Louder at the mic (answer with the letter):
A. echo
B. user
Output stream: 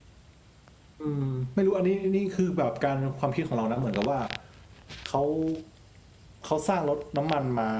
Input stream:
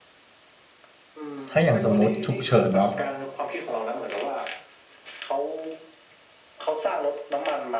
B